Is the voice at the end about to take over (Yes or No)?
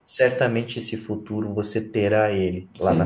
Yes